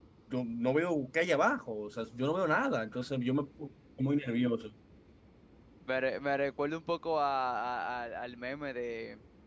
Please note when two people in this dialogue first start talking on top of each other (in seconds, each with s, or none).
none